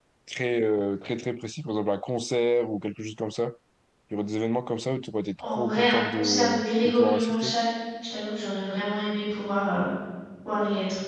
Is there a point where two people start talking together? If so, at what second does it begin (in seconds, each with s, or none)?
5.4 s